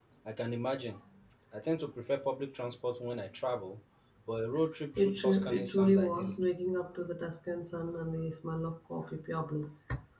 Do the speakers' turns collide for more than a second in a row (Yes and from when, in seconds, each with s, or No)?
Yes, from 5.0 s